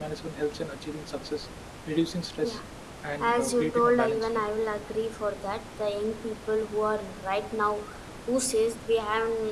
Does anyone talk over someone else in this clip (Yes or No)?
Yes